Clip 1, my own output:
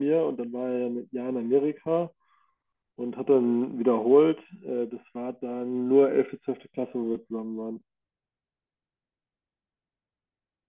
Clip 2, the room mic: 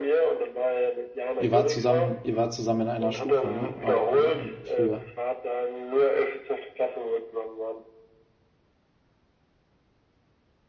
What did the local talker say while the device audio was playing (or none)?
Ihr wart zusammen, ihr wart zusammen in einer Stufe, ne? Auch, oder? In, früher.